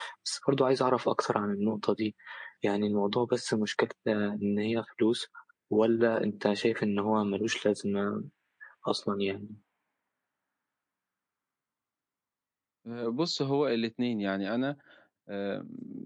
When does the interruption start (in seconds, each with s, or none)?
none